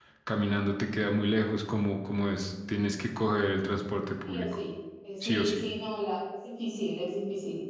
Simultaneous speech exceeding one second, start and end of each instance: none

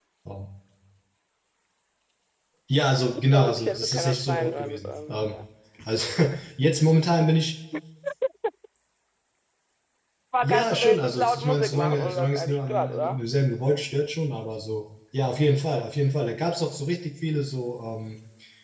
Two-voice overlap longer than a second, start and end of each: 3.3-5.4, 10.4-13.2

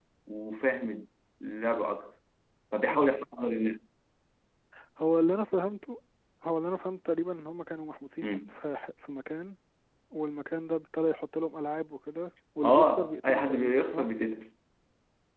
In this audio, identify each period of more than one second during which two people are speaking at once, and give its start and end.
12.6-14.1

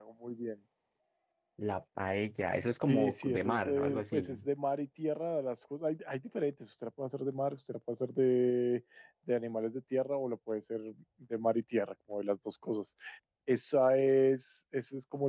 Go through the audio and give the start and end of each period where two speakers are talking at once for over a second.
2.9-4.4

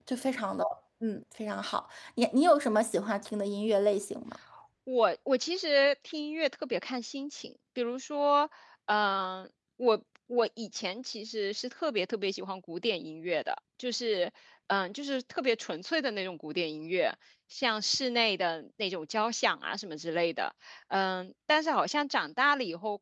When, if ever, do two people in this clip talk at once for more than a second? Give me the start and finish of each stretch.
none

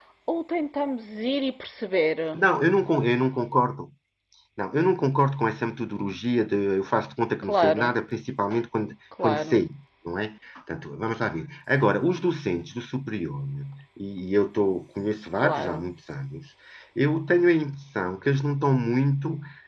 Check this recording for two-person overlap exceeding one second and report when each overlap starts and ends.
none

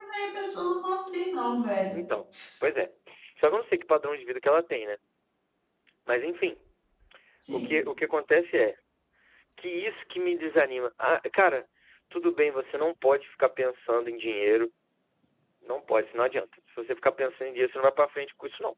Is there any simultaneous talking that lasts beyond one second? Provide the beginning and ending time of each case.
none

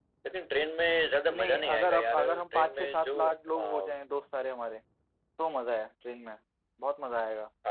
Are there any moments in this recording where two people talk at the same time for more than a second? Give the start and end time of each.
1.3-3.9

